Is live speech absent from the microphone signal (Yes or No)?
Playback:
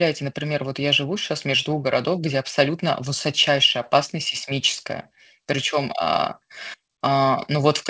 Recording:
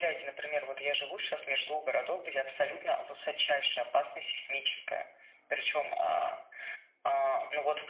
Yes